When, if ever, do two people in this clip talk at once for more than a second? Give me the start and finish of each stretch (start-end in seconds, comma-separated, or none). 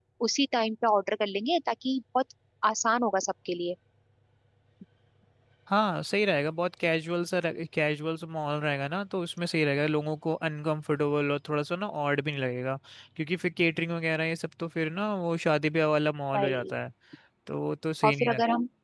none